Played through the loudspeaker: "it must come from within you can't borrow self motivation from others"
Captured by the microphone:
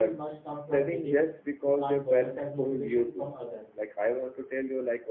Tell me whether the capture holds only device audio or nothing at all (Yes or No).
No